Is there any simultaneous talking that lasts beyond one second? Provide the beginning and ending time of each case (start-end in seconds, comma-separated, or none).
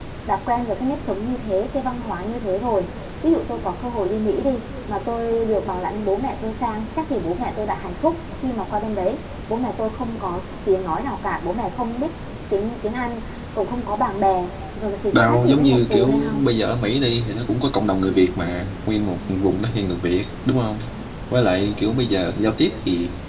15.1-16.4